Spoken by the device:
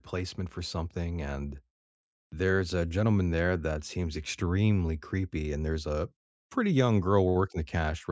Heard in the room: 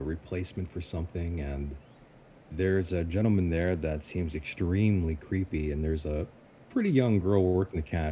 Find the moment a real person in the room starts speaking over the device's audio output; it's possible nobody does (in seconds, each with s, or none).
none